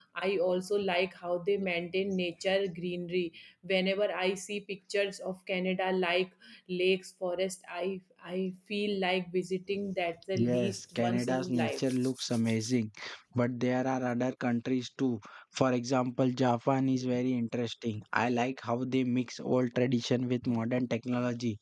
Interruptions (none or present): present